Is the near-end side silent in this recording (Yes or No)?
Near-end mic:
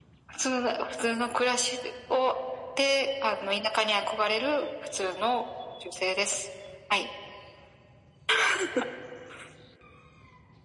Yes